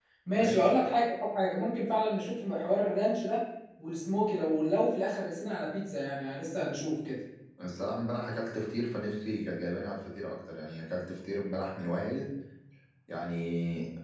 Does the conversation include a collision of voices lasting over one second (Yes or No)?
No